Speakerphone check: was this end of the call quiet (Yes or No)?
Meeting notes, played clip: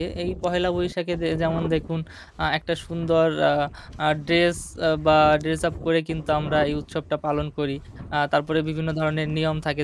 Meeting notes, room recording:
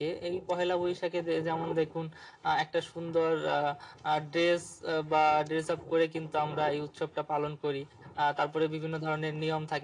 Yes